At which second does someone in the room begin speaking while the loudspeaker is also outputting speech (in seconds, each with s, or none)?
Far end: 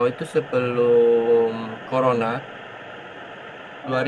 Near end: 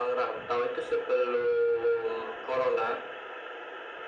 none